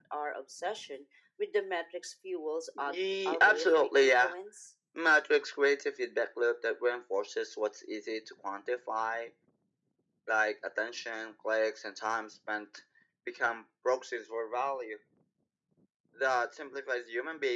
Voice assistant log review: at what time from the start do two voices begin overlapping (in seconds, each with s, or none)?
2.8 s